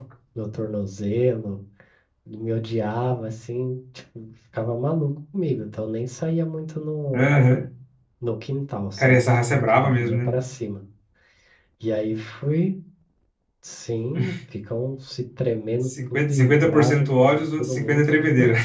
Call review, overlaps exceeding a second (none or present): present